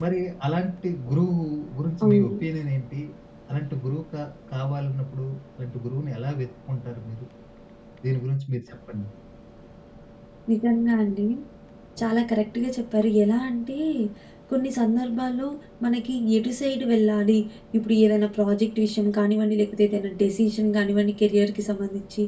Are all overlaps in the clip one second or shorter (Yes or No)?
Yes